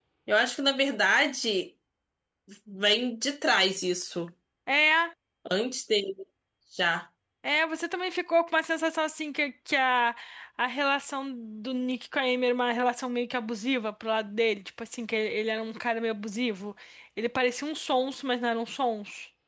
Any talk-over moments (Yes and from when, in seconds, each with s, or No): No